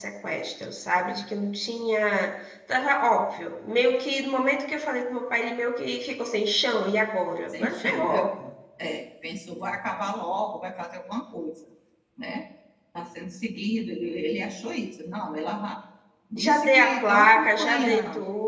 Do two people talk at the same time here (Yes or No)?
Yes